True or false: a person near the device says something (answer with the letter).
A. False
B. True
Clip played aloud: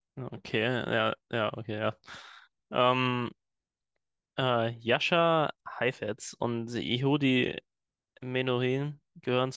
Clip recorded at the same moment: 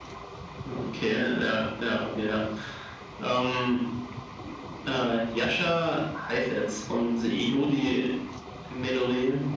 A